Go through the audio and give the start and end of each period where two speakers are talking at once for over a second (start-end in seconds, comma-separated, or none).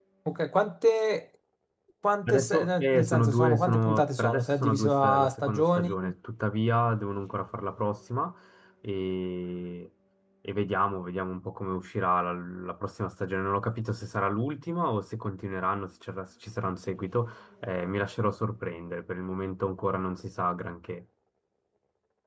2.3-6.0